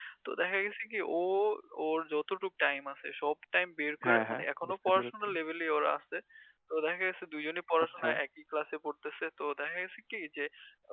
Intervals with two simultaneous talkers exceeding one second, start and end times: 4.0-5.3

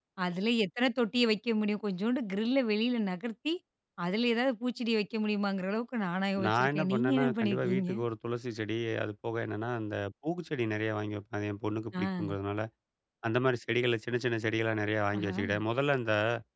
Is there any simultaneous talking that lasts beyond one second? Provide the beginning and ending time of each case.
6.5-7.9

